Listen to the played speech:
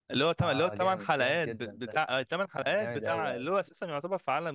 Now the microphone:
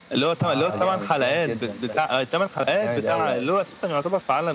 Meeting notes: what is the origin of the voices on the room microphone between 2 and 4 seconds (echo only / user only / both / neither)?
echo only